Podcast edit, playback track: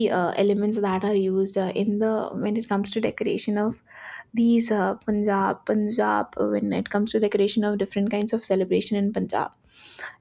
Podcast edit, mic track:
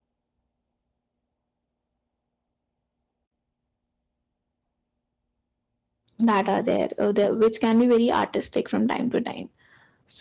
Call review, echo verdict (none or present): none